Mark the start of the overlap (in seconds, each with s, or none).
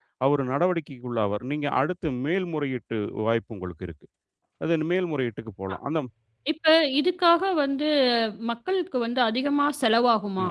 none